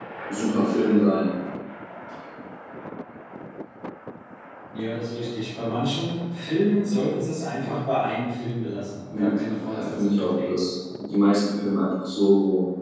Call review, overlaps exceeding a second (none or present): present